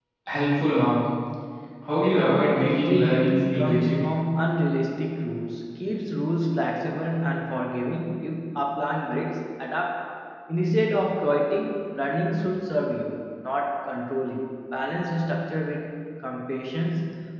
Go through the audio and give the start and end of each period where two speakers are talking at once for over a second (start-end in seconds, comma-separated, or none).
2.0-4.0